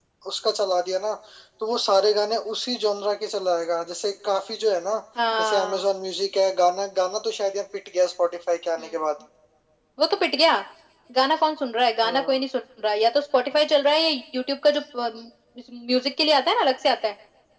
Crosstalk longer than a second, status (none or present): none